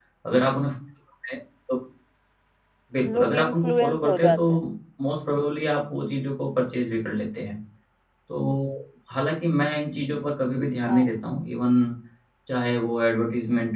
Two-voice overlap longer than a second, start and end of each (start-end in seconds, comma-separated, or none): 3.2-4.4